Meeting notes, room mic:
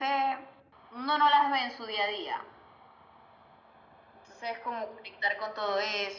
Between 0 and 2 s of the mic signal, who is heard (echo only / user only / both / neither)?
echo only